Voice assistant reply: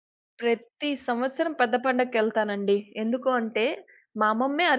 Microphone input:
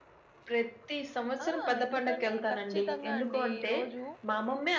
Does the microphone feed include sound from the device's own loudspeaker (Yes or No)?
Yes